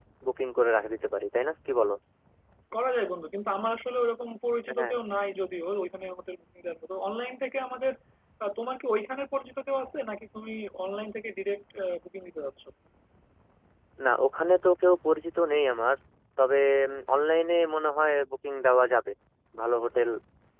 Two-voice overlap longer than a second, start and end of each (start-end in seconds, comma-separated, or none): none